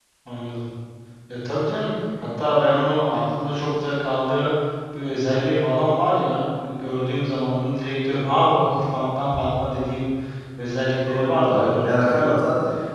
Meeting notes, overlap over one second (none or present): present